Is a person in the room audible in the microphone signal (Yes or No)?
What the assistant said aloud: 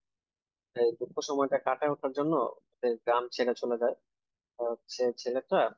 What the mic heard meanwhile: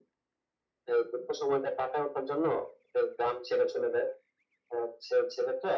No